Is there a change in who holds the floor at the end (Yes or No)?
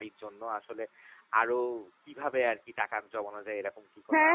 Yes